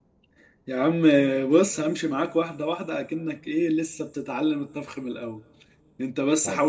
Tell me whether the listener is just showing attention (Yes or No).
Yes